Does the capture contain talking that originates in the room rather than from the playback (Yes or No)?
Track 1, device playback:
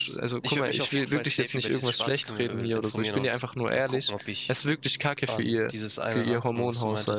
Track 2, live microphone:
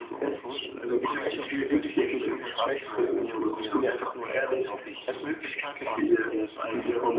No